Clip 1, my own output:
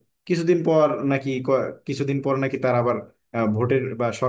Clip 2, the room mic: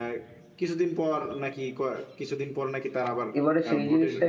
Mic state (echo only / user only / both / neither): both